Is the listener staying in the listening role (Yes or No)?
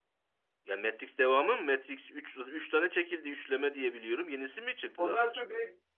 No